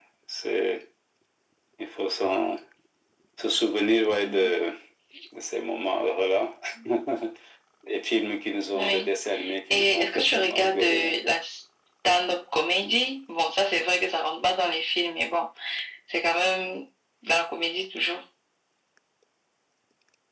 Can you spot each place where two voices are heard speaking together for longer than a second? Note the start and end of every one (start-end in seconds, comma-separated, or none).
9.7-11.2